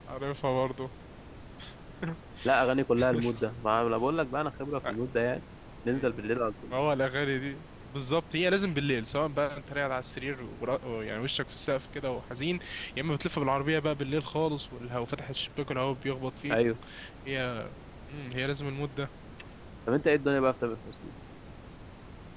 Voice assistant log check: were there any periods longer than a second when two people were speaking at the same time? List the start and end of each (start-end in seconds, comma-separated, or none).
none